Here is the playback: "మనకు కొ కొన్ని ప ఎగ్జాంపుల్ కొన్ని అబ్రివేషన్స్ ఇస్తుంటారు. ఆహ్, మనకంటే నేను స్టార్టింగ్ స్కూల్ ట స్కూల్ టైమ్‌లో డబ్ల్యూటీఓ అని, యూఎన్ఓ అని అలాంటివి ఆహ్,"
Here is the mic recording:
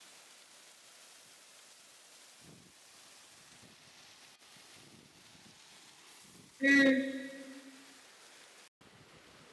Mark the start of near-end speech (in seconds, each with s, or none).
6.6 s